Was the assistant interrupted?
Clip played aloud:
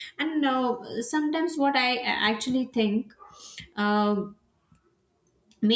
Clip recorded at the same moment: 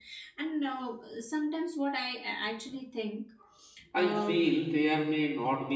Yes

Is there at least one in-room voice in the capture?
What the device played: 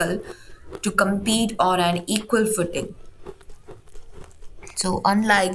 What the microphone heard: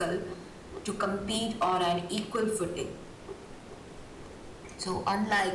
No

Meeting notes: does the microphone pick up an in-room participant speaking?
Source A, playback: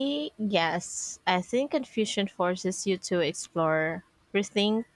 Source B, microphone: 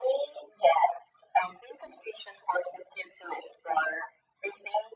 No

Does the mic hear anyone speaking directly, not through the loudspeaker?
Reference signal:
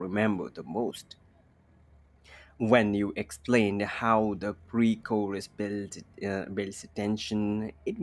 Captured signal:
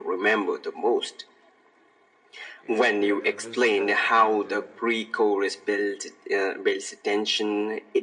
Yes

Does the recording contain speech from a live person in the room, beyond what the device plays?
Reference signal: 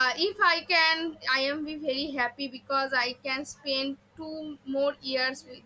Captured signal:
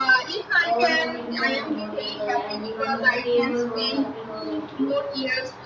Yes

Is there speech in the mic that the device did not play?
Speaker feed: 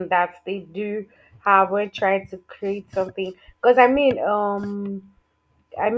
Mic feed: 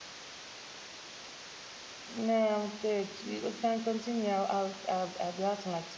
Yes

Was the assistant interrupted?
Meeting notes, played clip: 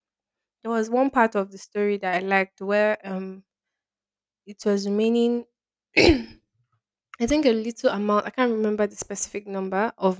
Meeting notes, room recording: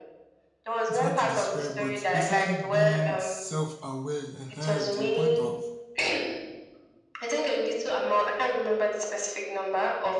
Yes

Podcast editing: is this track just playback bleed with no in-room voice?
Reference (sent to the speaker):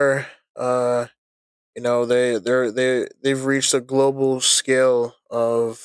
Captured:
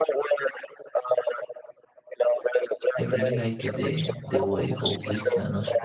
No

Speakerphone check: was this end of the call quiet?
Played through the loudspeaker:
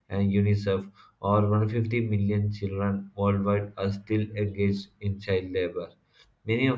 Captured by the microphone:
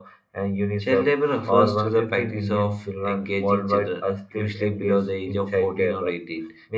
No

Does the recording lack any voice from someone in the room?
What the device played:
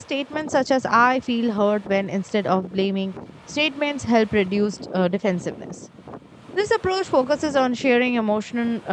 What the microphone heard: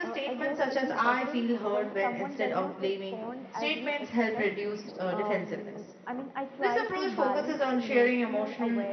No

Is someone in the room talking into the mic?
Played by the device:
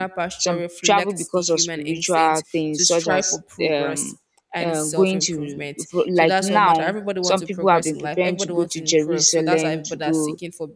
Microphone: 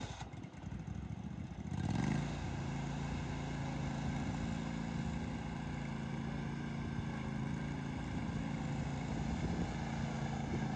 No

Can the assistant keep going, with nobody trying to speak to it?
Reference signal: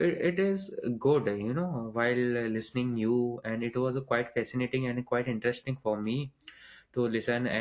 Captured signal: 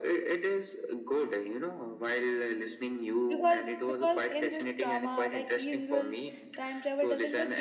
No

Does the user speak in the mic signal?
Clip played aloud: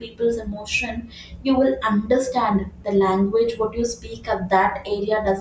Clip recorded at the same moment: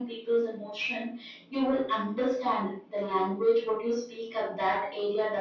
No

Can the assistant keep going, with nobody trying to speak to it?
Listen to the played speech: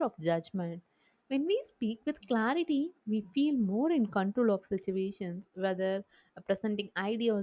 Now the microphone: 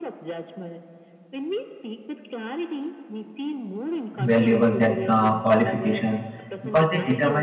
No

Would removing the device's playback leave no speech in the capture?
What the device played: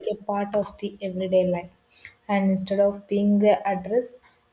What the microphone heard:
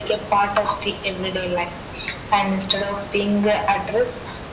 Yes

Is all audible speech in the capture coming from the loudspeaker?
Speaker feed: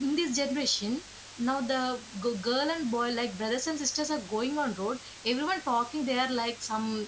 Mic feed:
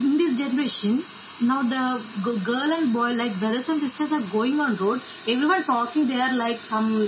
Yes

